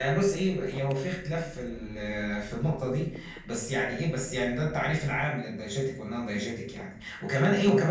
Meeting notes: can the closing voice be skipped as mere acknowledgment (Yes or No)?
Yes